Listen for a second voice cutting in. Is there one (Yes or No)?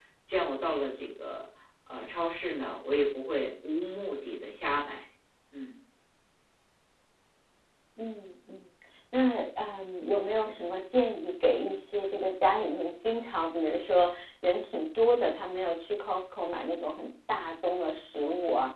No